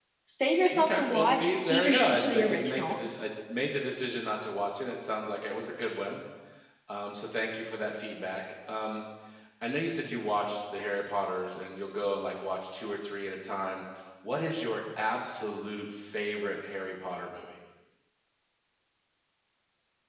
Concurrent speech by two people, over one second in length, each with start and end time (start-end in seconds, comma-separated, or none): 0.7-3.0